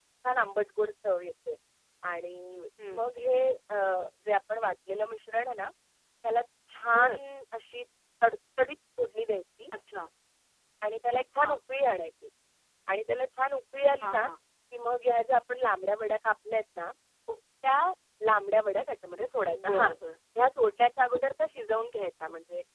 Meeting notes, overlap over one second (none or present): none